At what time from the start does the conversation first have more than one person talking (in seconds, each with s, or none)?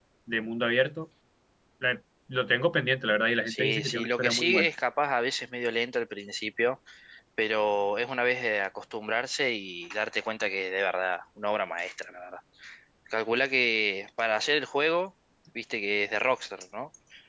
3.5 s